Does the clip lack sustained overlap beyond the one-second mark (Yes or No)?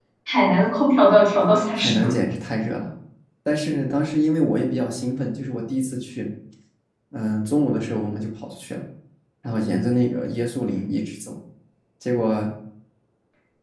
Yes